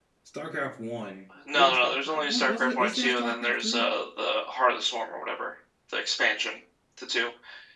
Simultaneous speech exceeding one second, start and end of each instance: 1.5-3.8

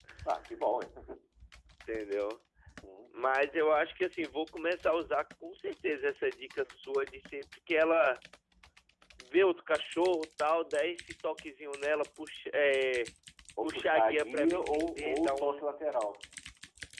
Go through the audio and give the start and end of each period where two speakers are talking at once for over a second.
13.6-15.7

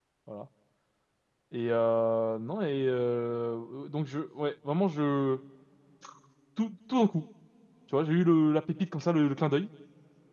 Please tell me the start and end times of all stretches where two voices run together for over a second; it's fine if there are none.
none

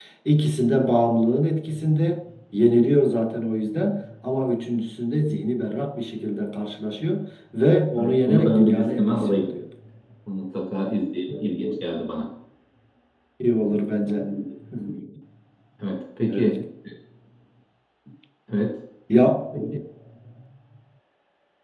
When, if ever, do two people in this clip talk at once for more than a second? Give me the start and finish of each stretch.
8.0-9.5

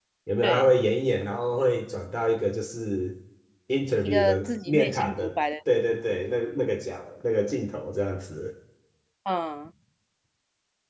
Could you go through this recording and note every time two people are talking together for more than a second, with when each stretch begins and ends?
4.0-5.3

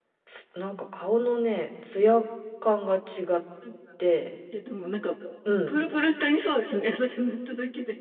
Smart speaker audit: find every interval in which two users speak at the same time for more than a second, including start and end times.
none

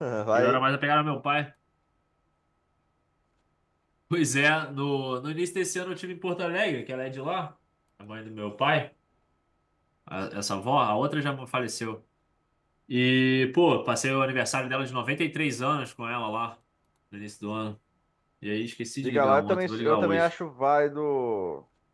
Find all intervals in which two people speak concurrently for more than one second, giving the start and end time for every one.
19.0-20.3

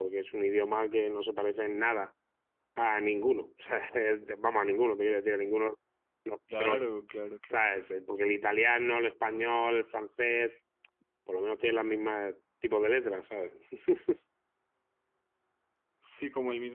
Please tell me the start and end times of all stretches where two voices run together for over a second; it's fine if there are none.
none

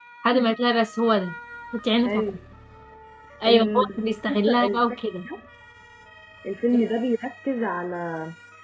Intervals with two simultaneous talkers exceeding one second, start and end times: 3.5-4.8

